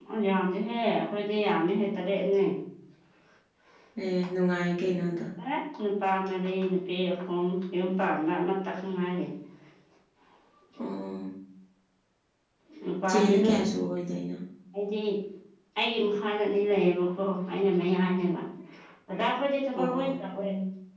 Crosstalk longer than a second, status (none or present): none